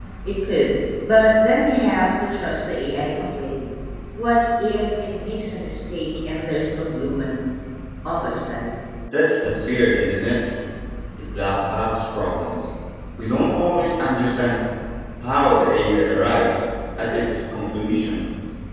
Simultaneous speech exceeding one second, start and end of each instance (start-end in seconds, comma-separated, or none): none